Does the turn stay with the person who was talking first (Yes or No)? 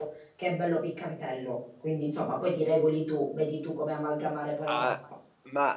No